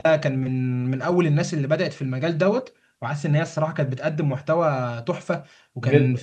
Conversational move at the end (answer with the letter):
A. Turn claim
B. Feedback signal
B